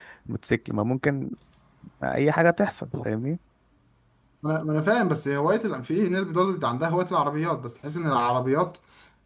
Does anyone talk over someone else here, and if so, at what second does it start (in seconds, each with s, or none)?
none